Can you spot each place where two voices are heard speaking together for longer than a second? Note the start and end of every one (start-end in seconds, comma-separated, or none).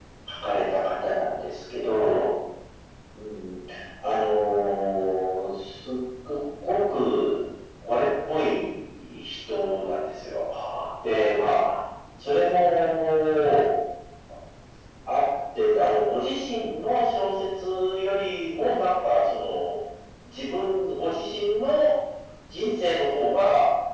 none